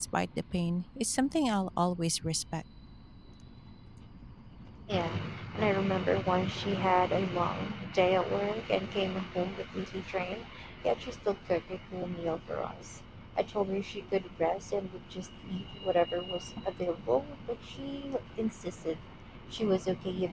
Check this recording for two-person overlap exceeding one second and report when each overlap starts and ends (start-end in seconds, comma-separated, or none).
none